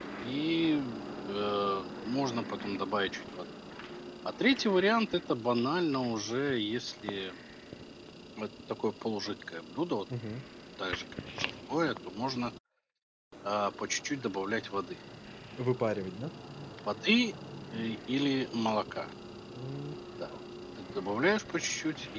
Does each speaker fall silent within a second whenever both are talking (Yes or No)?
Yes